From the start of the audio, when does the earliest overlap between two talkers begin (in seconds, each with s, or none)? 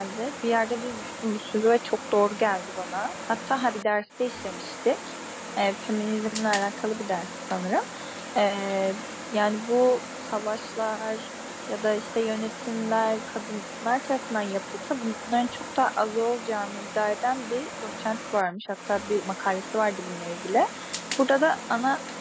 none